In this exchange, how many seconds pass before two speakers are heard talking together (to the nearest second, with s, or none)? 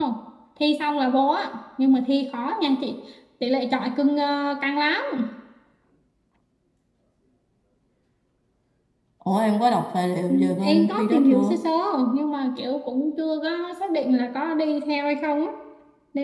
10 s